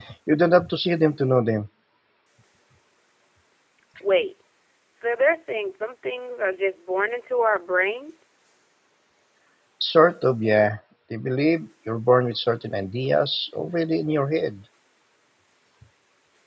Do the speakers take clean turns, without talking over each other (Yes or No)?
Yes